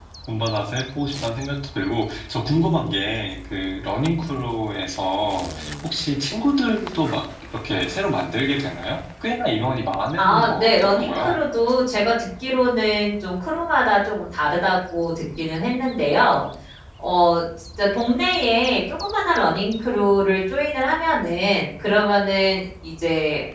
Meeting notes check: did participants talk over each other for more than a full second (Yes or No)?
Yes